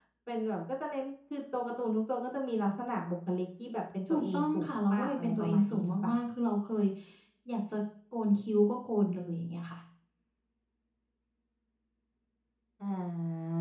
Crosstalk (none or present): present